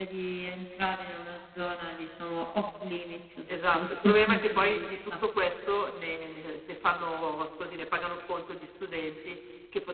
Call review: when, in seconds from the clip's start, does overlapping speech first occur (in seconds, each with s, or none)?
3.5 s